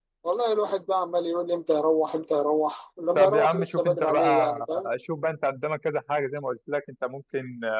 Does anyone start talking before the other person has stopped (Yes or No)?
Yes